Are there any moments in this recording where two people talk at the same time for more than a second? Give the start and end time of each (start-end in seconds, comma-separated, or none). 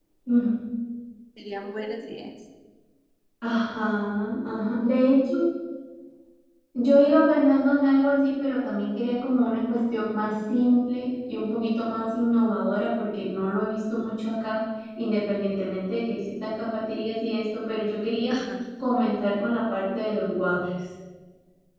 none